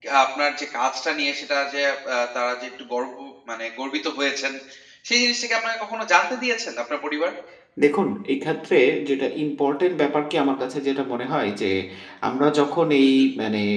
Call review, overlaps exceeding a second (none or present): none